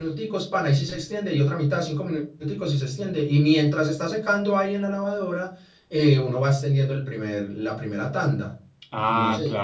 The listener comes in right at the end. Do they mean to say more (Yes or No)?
Yes